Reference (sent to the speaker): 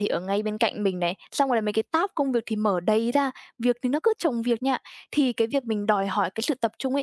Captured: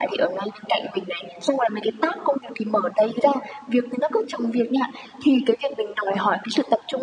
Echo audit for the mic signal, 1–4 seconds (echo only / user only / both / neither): echo only